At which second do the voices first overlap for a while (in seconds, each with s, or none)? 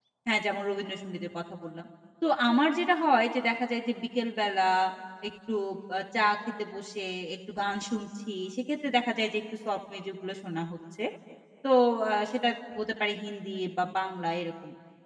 none